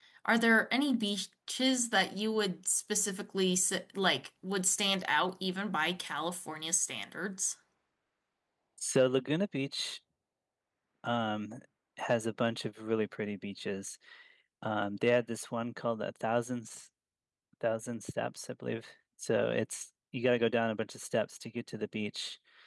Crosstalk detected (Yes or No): No